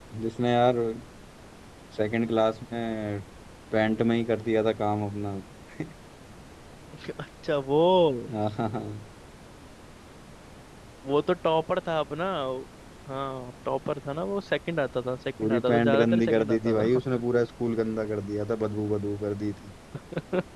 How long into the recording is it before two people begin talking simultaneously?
15 s

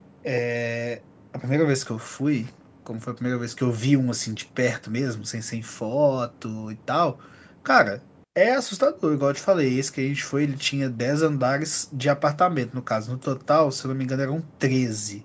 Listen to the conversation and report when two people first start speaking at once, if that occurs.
none

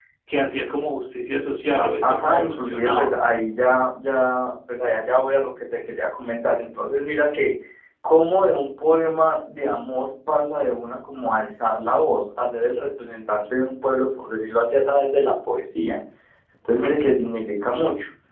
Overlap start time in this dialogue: 2 s

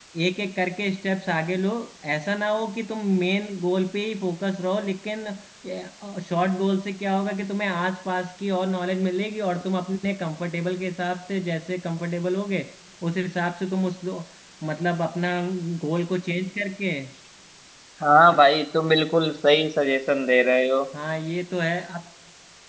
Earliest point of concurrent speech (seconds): none

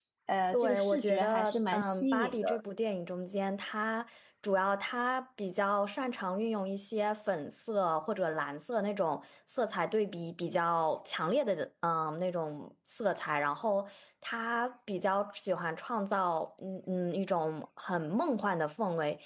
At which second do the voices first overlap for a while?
1 s

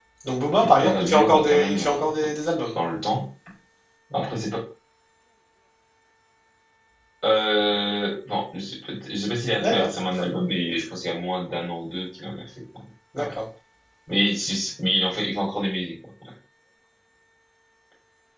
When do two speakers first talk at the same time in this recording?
1 s

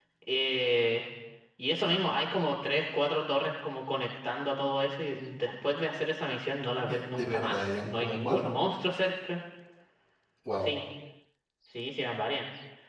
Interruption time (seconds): 7 s

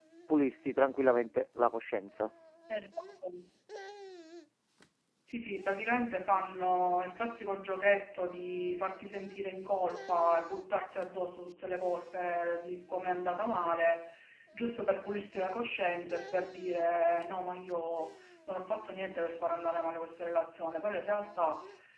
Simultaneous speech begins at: none

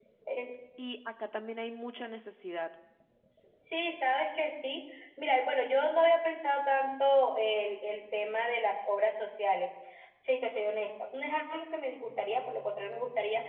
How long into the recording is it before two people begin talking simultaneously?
none

